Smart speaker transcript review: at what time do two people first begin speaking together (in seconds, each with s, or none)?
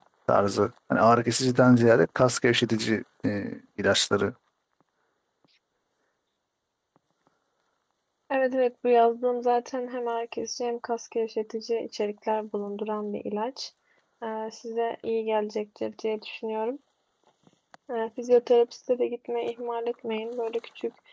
none